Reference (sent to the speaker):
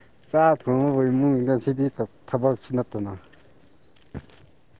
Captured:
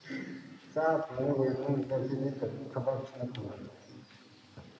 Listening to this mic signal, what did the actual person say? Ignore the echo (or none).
none